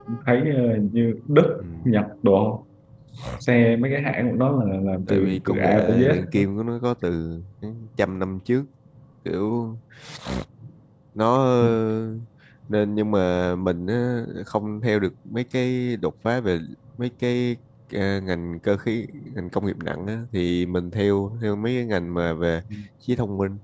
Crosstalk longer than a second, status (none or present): present